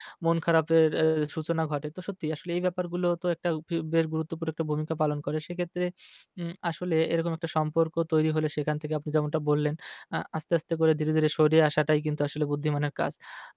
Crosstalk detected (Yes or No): No